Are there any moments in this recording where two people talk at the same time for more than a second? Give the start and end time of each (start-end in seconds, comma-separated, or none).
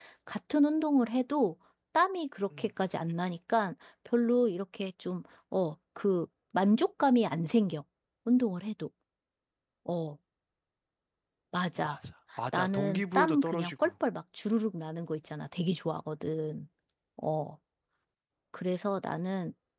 12.5-13.9